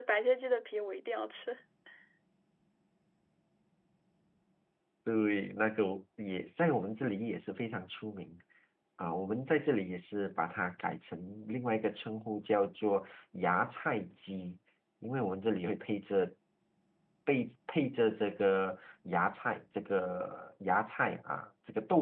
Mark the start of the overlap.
none

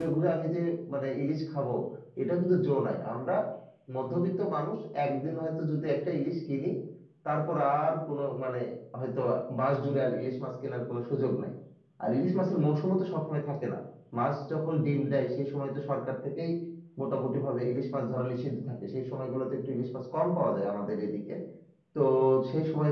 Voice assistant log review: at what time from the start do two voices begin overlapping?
none

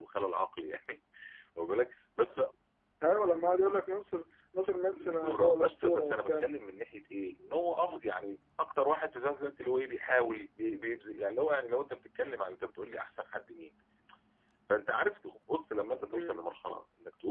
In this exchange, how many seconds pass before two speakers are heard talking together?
5.0 s

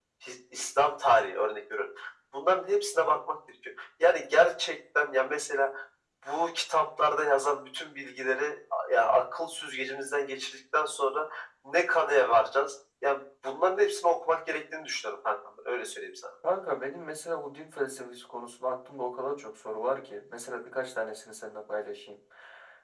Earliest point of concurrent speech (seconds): none

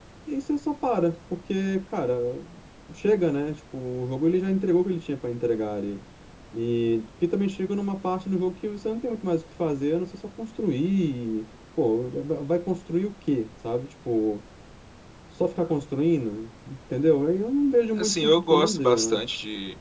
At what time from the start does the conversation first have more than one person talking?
18.0 s

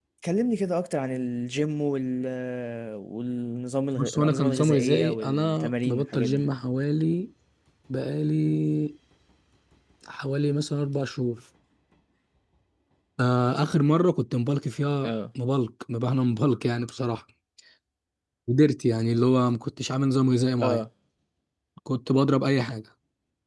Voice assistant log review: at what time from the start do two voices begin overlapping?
4.0 s

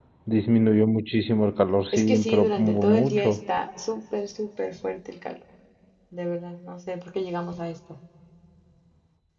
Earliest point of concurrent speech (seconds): 1.9 s

